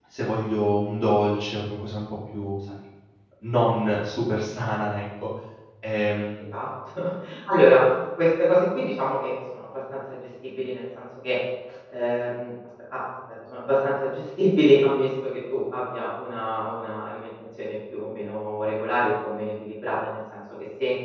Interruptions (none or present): none